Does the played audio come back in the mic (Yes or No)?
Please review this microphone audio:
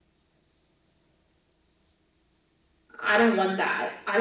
No